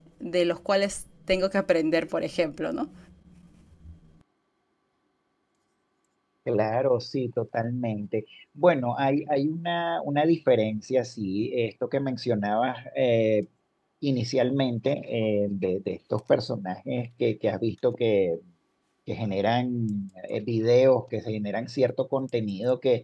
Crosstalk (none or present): none